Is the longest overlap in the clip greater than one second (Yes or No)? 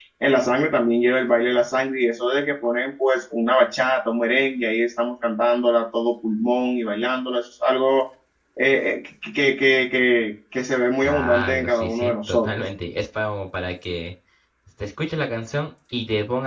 Yes